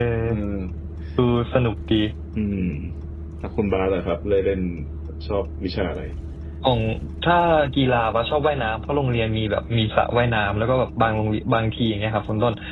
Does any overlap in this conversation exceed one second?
No

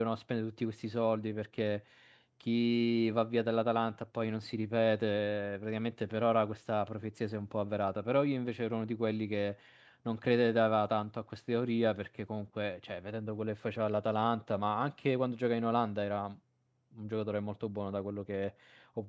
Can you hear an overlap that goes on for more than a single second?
No

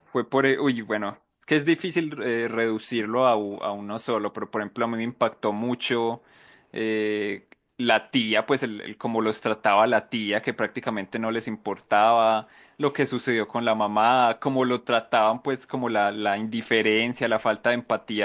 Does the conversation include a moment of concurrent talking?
No

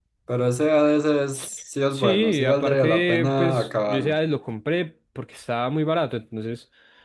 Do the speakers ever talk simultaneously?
Yes, from 1.9 s

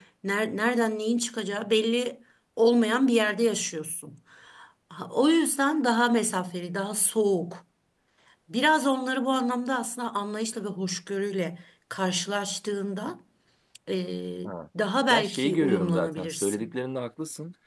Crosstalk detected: Yes, from 15.1 s

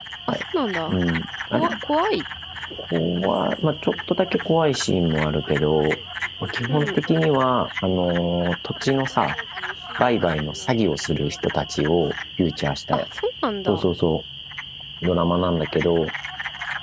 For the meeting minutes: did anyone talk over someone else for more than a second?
No

